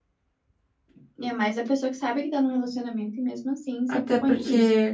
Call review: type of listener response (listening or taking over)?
taking over